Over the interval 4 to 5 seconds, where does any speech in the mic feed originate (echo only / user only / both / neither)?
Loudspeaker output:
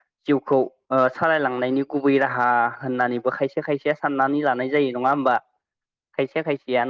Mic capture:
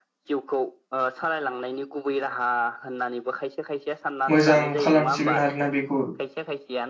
both